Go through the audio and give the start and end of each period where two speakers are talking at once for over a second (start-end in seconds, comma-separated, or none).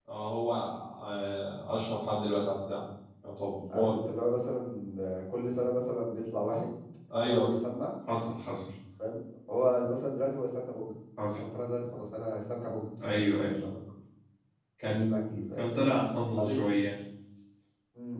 none